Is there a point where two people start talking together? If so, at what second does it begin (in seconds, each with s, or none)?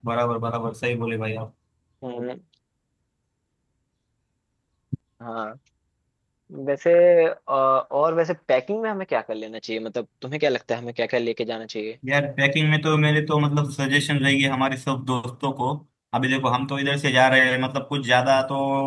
none